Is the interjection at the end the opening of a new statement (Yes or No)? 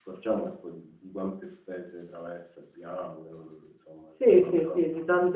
Yes